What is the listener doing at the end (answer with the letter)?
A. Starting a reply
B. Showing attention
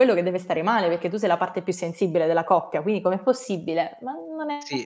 A